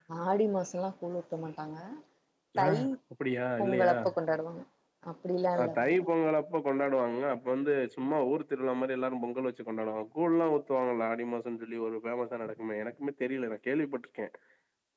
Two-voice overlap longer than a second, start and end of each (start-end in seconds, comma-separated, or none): none